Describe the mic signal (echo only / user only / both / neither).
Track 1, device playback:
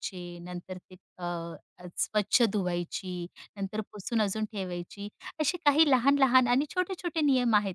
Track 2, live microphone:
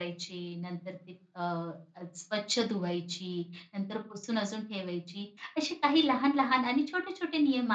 echo only